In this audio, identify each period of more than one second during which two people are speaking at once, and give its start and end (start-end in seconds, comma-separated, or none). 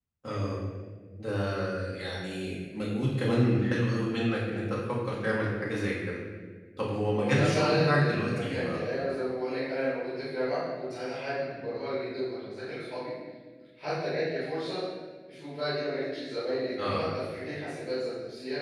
7.1-8.8